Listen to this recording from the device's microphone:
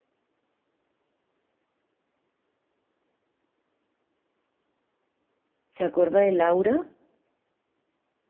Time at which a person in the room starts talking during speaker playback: 5.7 s

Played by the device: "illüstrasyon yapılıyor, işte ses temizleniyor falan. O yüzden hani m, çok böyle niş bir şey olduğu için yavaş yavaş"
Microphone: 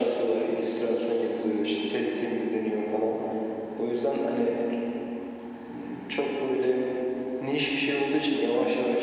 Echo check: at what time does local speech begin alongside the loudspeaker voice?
none

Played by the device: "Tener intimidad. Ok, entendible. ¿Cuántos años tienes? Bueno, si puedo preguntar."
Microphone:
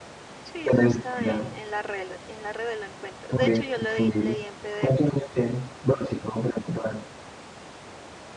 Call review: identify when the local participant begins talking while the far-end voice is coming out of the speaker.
0.4 s

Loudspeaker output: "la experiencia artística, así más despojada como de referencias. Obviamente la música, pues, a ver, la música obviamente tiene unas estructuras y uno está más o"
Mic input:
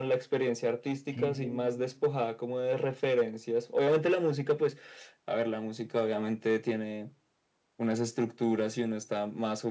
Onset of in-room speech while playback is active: 1.1 s

